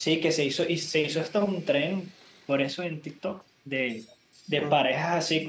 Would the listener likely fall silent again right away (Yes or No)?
Yes